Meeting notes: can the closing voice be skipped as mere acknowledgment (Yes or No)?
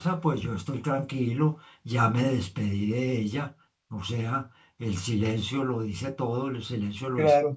No